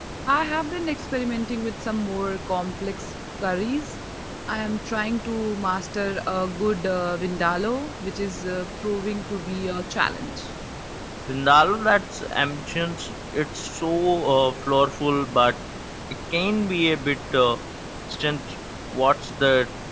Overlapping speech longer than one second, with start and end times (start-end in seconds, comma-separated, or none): none